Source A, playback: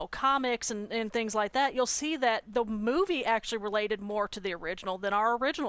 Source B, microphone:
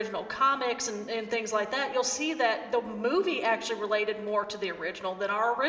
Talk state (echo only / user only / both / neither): echo only